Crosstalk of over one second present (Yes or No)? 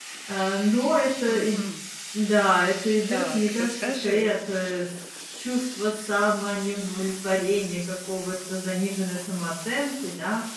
Yes